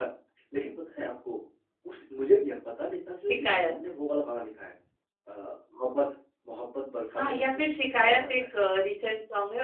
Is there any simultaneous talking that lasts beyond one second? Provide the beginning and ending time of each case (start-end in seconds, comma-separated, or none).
7.1-8.4